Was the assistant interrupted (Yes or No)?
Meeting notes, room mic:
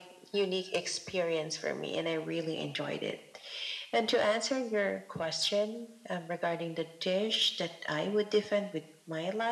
No